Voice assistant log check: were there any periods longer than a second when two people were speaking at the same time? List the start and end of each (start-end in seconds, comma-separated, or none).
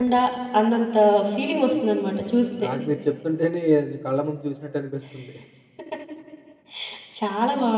none